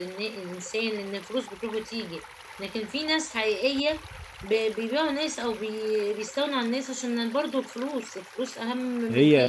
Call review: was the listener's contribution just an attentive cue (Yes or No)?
No